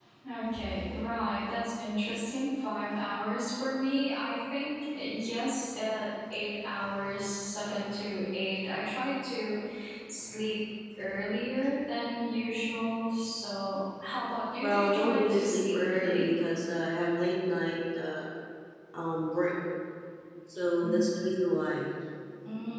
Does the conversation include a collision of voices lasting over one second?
Yes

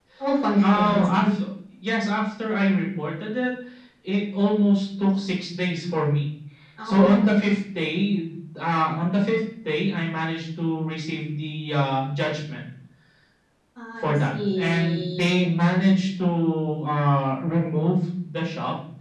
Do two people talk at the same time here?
Yes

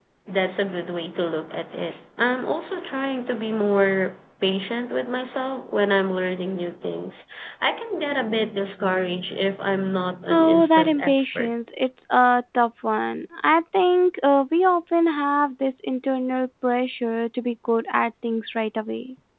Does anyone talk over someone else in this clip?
Yes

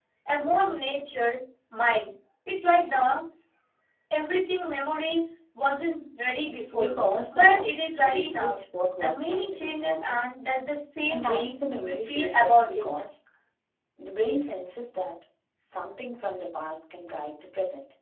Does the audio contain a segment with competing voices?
Yes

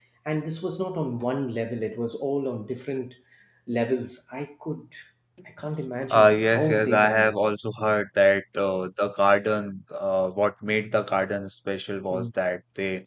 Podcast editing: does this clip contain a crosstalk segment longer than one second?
Yes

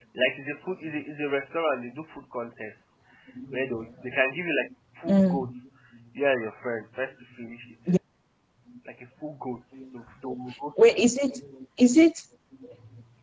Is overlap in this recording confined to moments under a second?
Yes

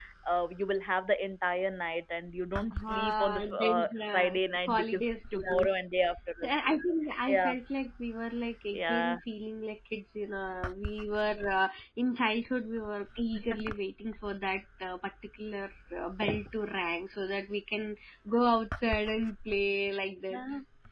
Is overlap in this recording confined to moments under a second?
No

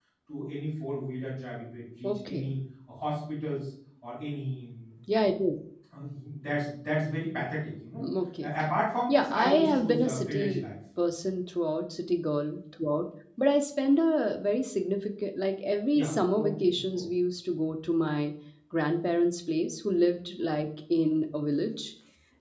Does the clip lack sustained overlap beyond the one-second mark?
No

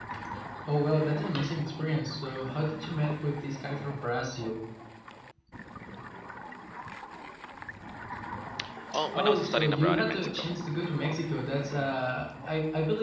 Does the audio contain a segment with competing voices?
Yes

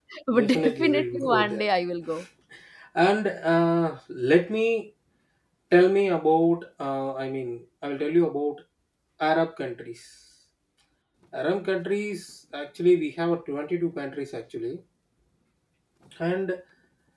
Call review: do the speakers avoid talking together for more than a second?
No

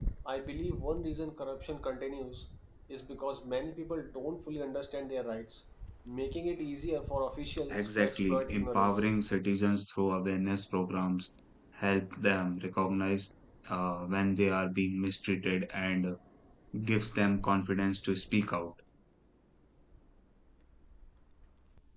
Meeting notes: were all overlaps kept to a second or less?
No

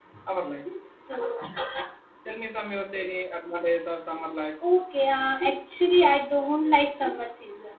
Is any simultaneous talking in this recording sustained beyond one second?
No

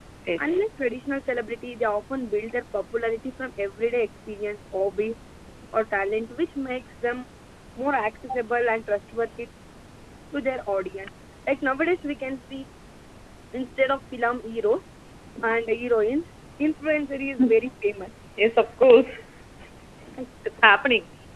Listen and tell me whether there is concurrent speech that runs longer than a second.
No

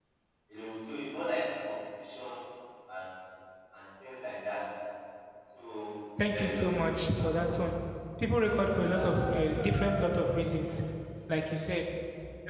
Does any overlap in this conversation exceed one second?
Yes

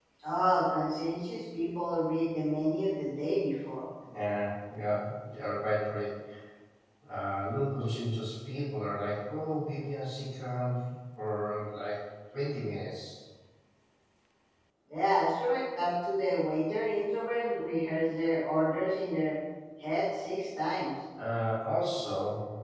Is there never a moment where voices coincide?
Yes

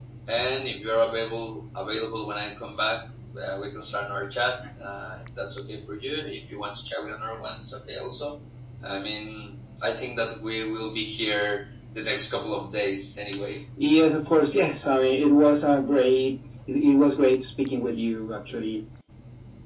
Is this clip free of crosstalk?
Yes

